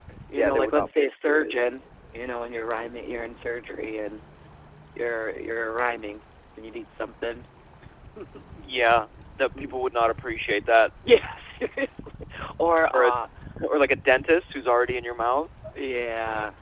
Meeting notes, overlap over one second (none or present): present